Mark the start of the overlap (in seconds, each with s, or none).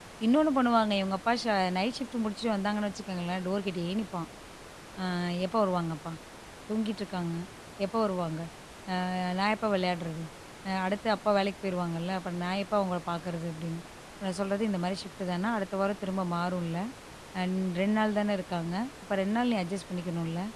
none